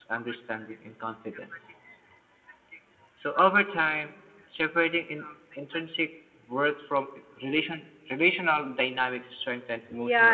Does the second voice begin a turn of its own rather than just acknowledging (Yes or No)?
Yes